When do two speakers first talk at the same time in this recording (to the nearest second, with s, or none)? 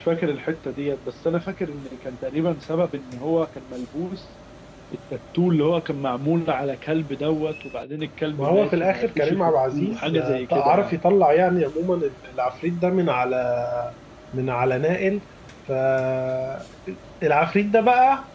8 s